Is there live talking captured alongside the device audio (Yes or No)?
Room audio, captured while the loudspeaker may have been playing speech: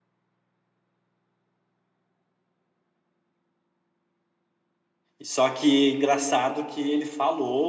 Yes